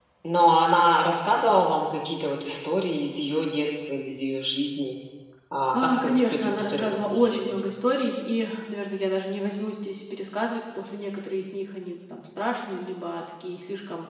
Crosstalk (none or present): present